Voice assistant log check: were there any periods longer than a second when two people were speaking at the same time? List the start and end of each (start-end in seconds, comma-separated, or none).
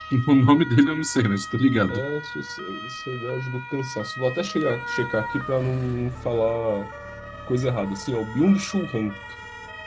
none